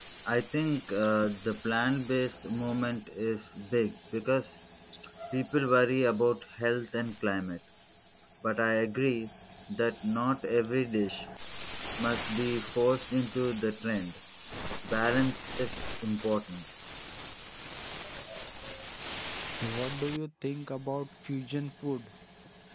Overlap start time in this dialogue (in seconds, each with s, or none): none